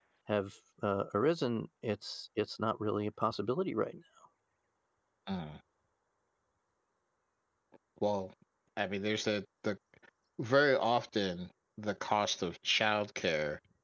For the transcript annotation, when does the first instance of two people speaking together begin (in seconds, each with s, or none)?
none